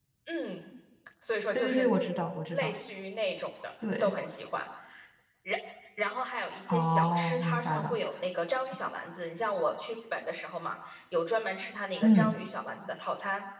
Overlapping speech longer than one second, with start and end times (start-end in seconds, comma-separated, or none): 6.7-8.0